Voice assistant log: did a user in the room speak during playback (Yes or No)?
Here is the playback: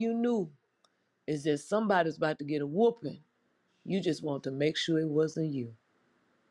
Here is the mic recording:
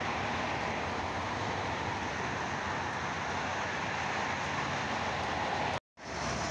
No